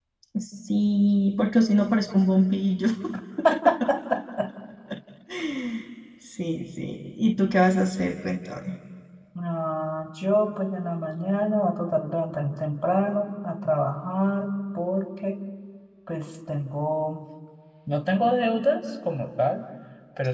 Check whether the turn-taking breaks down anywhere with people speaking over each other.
No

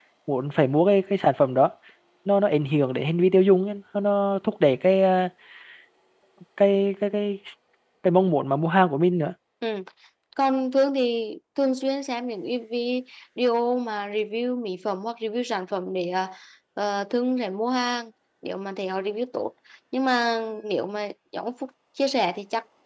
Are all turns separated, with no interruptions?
Yes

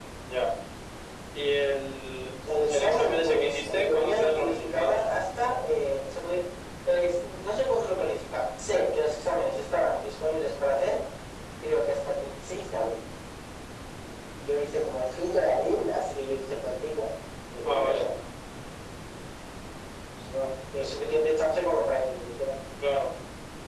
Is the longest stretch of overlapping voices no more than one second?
No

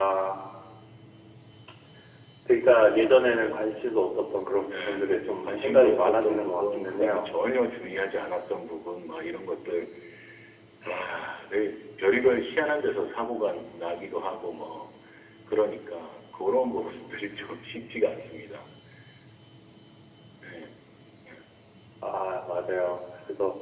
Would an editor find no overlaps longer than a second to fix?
No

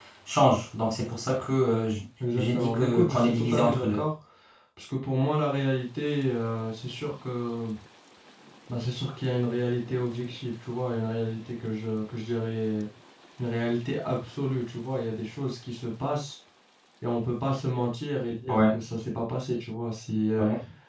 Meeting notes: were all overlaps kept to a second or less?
No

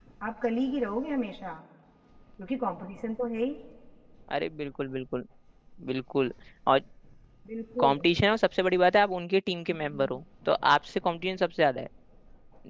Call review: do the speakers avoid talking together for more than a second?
Yes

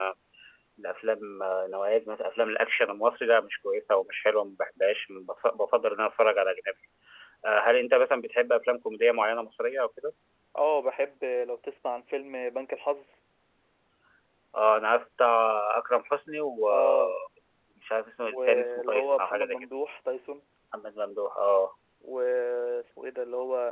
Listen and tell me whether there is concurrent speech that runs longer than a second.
Yes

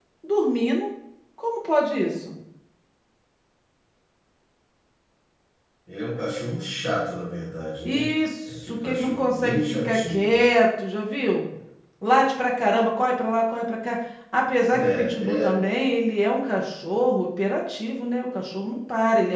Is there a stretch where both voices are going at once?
Yes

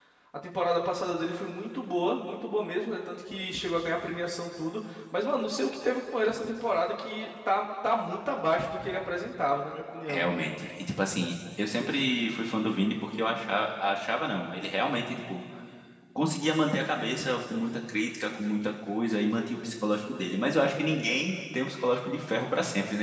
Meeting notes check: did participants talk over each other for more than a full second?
No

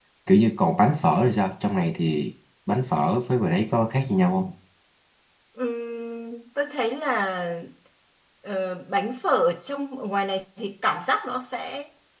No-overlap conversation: Yes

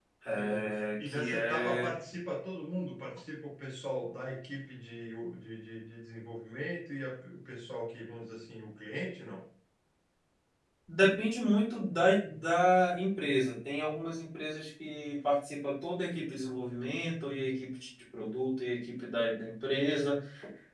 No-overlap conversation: No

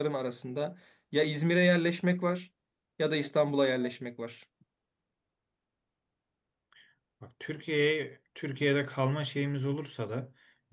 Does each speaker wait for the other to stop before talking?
Yes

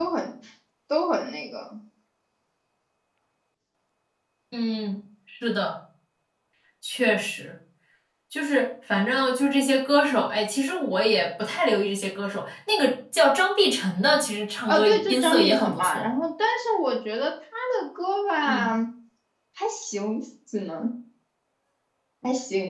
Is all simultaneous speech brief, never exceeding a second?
No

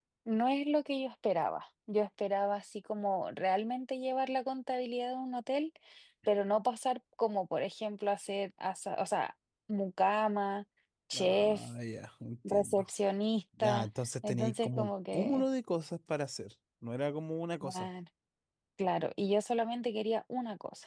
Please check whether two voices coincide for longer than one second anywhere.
Yes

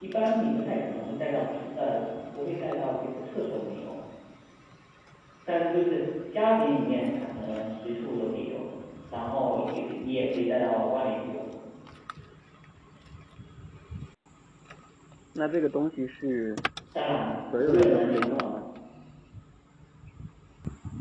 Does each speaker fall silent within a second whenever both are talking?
No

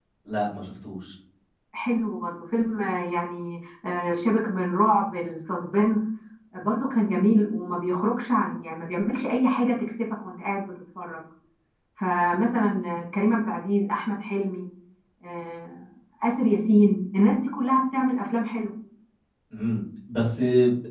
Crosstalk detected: No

